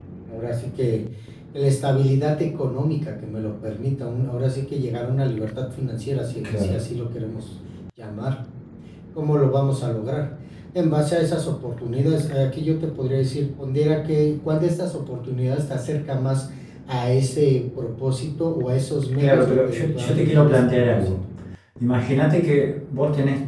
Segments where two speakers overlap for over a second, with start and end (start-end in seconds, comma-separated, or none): 19.2-21.1